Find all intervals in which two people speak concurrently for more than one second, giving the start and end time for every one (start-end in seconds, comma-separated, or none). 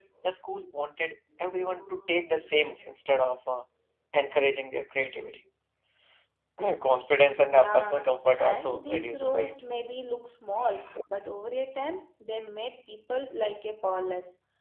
8.4-9.6